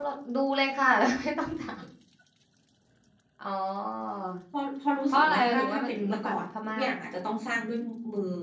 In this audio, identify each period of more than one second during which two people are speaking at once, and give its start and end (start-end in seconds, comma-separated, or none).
5.1-6.8